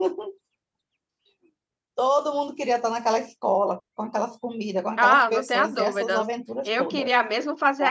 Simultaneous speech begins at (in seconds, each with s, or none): 5.0 s